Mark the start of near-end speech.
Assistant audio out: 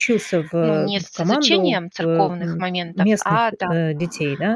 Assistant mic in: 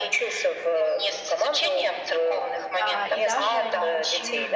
3 s

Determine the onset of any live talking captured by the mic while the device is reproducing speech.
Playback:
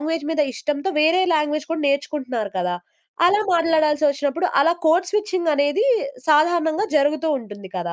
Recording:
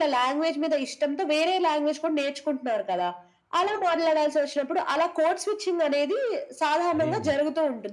7 s

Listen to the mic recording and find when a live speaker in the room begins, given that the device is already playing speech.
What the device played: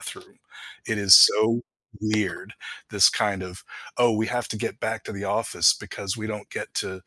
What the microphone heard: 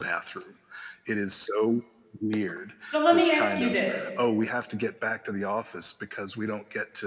3 s

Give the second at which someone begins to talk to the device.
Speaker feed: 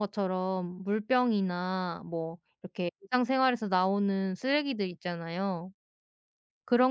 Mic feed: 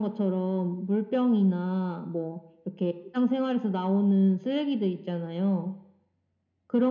none

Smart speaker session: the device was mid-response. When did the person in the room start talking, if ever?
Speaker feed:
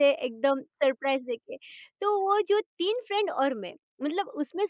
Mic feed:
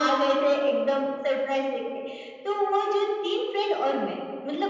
none

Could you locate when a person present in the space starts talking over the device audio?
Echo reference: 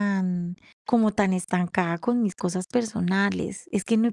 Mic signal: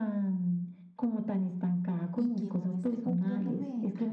2 s

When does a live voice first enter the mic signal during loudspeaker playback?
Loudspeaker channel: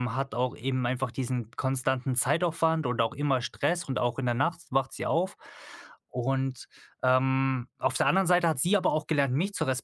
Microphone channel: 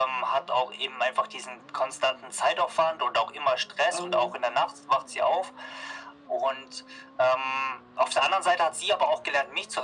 4 s

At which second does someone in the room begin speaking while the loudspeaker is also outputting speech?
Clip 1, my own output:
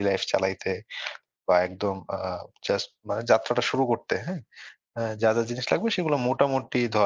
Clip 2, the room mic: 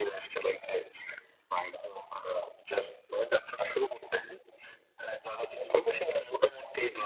none

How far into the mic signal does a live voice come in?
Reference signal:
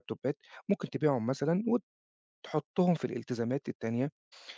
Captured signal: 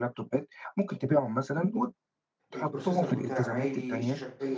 3 s

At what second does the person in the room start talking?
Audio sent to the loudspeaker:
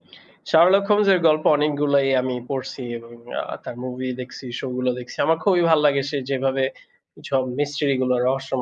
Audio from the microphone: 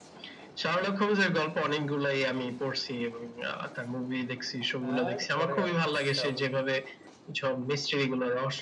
5 s

